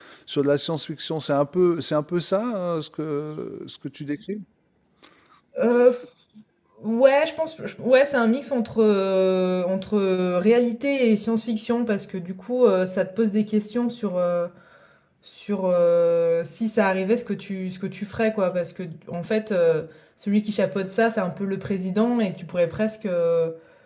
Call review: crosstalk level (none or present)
none